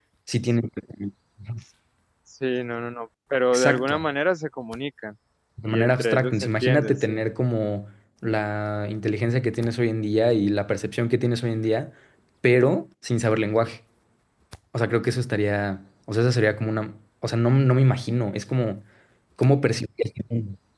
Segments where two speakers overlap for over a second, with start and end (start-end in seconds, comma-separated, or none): 5.7-7.2